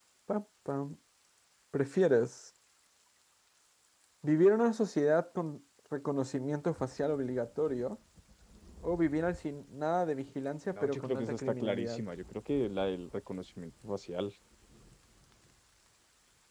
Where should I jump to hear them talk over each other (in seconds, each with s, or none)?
10.7 s